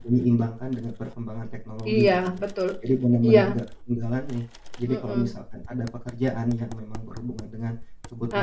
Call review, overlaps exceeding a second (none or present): none